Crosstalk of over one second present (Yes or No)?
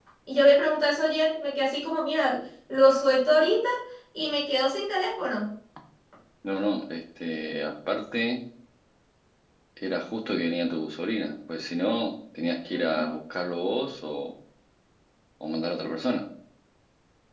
No